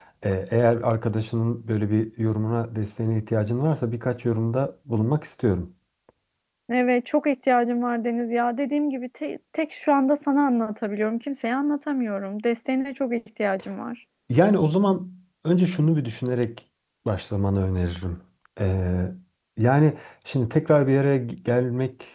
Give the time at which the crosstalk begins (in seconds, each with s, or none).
none